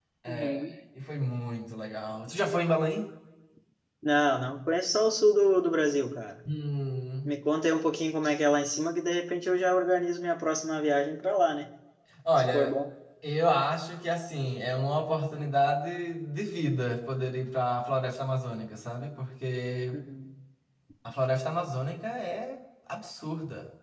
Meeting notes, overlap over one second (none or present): none